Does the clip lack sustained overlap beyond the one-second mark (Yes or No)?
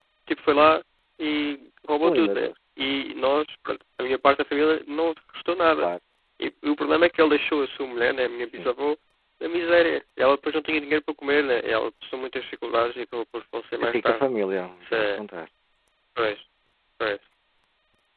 Yes